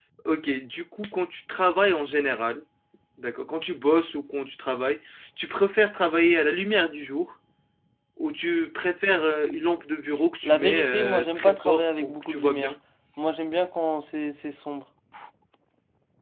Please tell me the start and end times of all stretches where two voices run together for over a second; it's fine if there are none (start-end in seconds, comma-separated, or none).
10.4-12.7